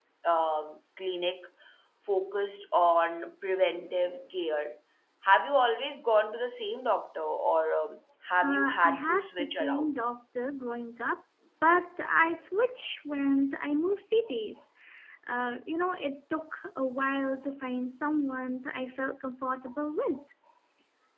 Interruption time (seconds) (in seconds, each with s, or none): 8.4 s